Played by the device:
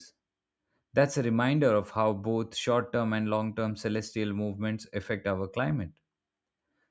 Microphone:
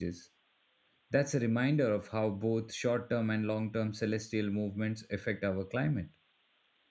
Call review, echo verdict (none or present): present